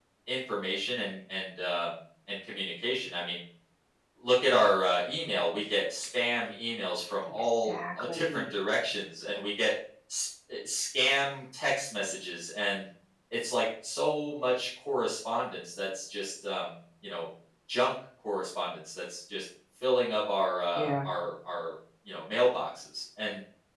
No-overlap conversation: No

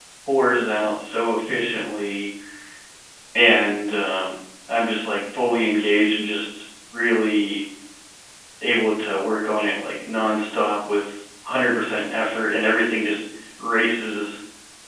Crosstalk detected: No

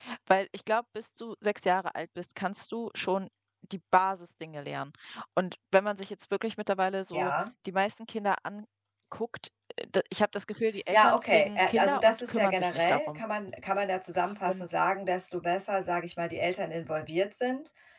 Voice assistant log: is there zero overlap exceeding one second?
No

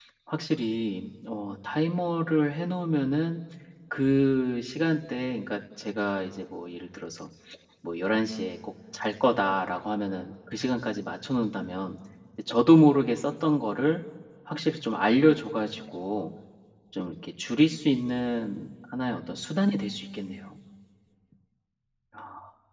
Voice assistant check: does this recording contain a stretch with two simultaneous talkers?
No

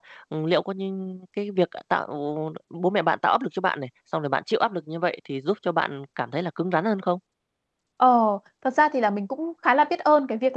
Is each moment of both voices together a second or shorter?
Yes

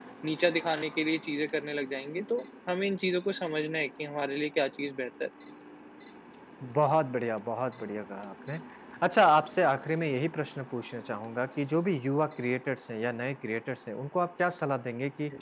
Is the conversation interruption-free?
Yes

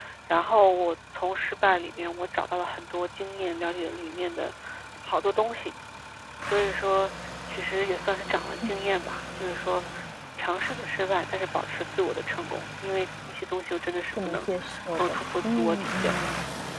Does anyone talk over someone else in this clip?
Yes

